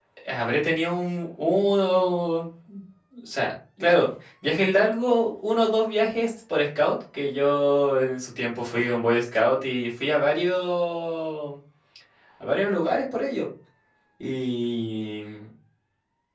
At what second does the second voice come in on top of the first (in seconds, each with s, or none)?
none